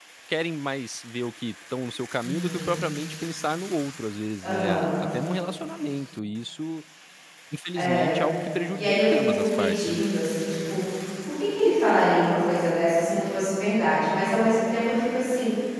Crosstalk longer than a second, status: present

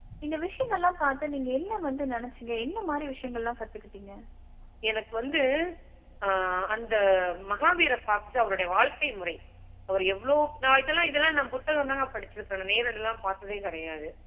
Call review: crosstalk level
none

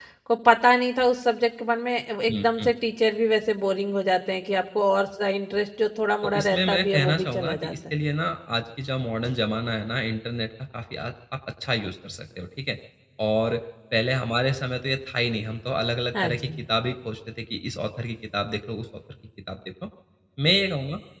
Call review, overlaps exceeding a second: present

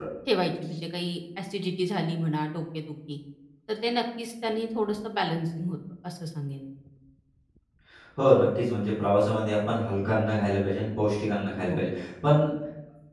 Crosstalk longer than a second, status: none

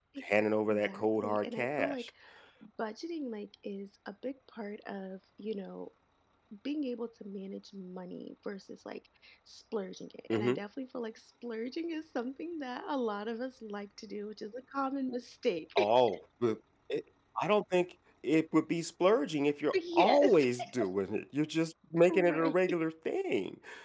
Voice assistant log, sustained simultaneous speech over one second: present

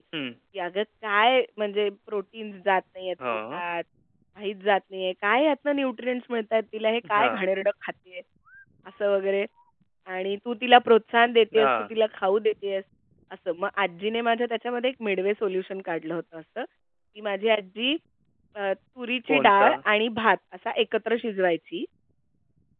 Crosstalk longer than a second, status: none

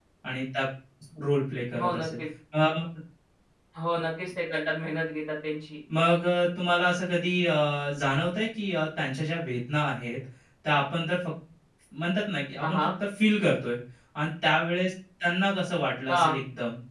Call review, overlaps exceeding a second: none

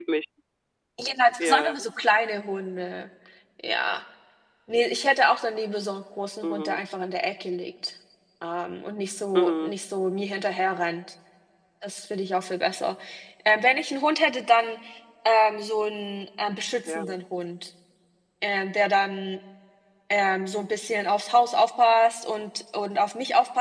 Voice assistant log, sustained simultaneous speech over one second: none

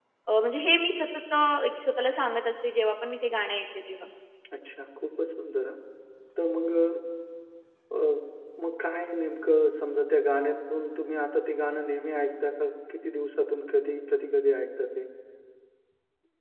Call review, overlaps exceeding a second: none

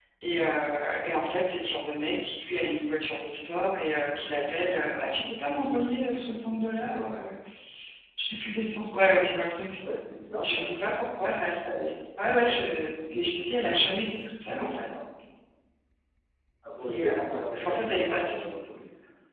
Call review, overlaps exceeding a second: present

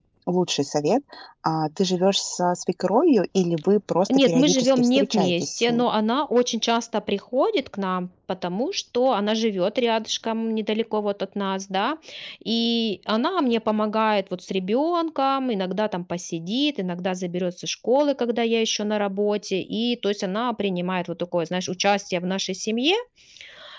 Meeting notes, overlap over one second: present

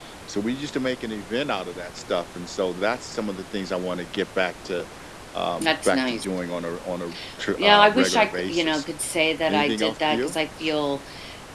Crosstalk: present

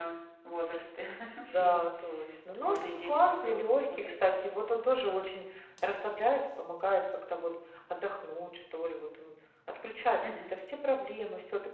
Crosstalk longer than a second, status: present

